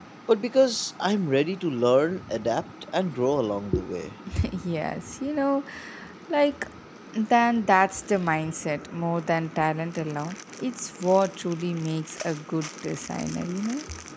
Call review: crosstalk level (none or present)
none